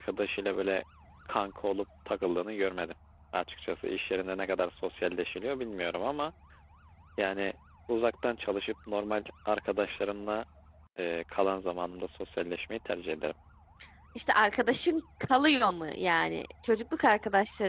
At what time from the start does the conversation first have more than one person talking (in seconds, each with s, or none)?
none